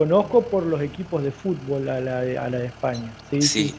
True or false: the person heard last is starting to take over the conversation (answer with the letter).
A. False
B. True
B